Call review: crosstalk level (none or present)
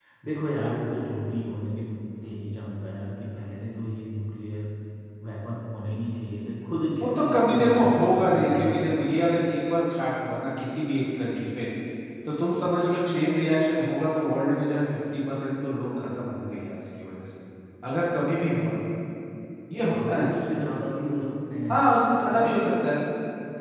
present